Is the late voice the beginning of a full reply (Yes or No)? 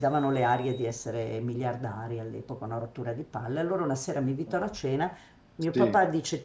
No